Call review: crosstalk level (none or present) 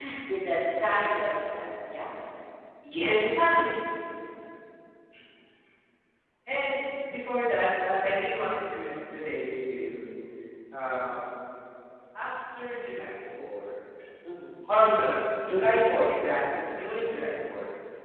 none